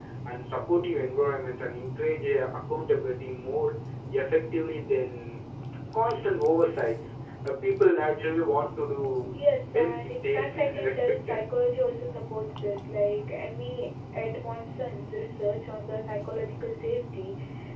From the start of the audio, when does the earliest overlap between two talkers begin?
9.8 s

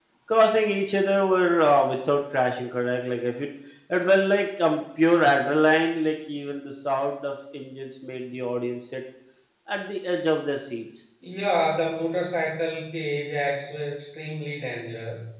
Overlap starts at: none

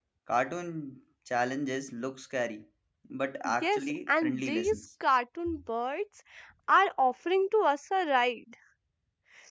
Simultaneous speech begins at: 3.6 s

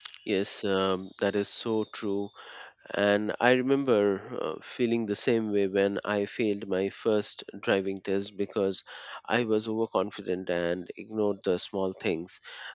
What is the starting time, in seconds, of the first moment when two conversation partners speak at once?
none

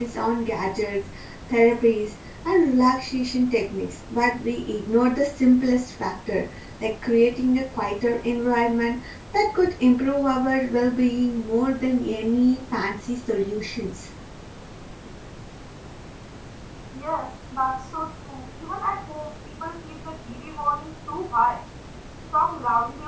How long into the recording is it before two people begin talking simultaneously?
none

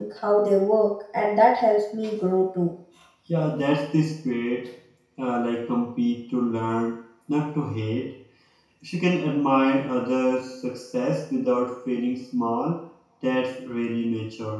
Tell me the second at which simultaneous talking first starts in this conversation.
none

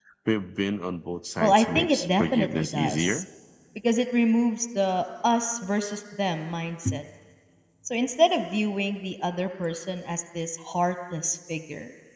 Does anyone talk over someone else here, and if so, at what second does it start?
1.4 s

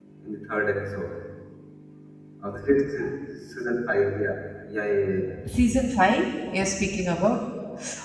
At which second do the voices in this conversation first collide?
none

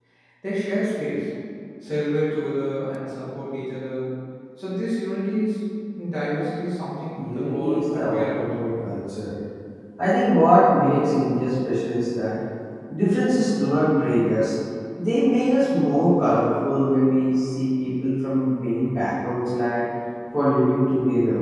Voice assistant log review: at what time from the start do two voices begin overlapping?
7.2 s

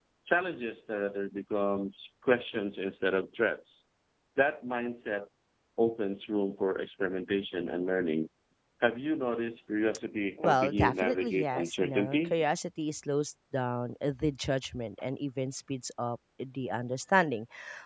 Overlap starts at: 10.4 s

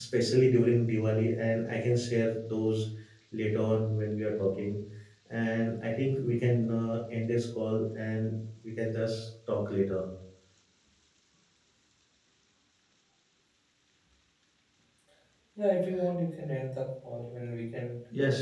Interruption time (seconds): none

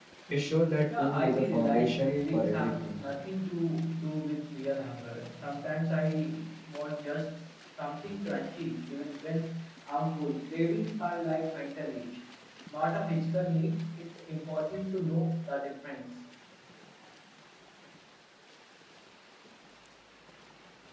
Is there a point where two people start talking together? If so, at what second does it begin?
1.0 s

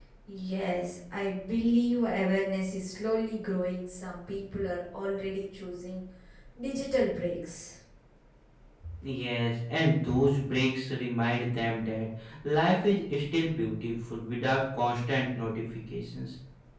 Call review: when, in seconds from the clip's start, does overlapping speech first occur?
none

